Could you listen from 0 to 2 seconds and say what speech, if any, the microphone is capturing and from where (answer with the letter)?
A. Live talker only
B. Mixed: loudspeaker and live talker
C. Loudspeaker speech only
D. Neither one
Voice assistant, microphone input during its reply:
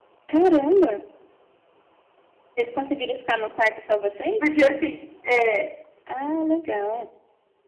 C